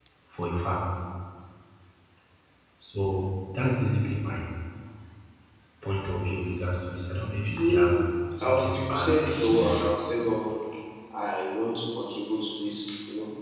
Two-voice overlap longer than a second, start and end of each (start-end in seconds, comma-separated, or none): 8.4-9.8